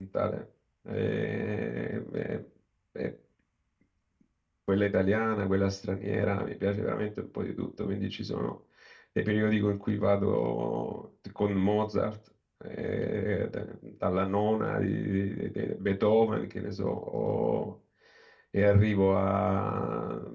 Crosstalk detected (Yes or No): No